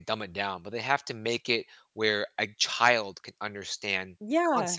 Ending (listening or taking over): taking over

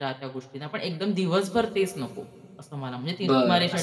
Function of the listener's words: taking over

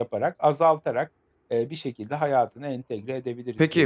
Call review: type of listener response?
taking over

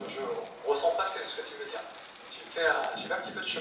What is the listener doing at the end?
listening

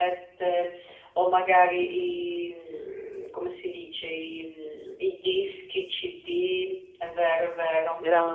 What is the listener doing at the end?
taking over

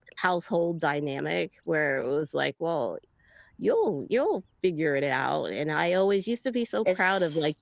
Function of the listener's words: listening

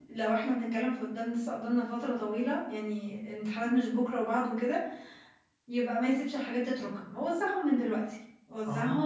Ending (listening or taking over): taking over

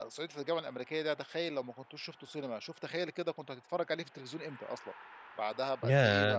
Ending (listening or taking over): taking over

